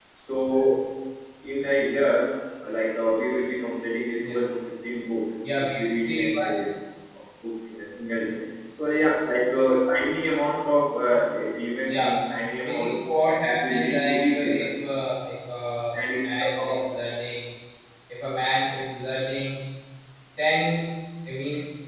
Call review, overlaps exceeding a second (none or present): present